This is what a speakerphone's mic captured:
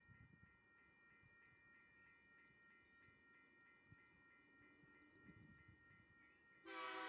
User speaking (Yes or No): No